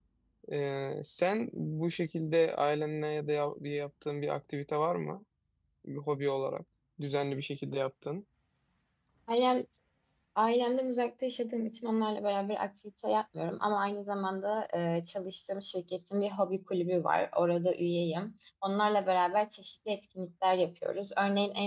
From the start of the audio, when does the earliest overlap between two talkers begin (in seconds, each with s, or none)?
none